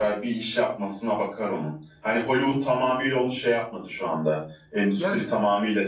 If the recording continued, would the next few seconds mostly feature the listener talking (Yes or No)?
No